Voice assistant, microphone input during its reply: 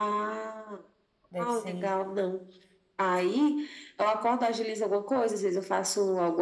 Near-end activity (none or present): present